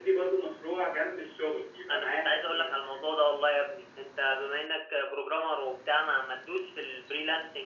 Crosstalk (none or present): present